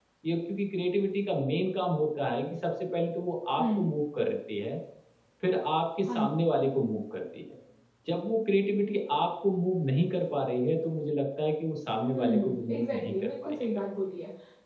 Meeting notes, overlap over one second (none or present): present